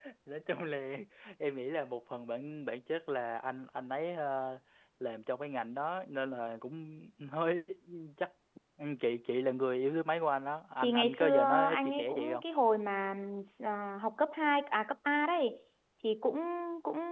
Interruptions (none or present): present